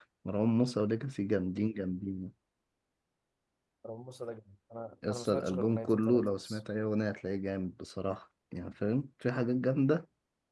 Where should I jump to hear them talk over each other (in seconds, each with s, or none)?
5.0 s